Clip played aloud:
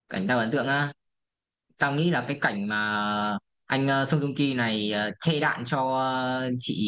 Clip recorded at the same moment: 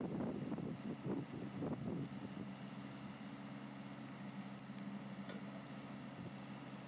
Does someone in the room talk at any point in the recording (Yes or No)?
No